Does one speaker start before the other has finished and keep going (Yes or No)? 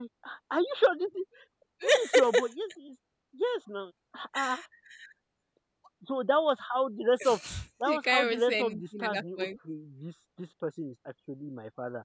Yes